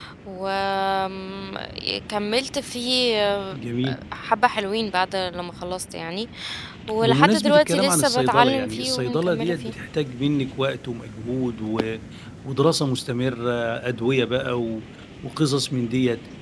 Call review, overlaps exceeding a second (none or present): present